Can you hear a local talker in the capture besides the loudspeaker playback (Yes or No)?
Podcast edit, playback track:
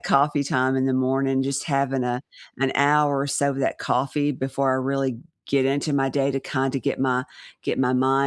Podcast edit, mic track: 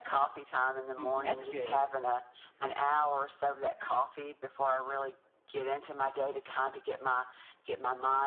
Yes